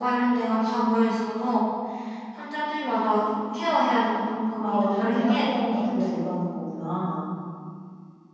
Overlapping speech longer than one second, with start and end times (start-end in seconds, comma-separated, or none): 4.6-6.1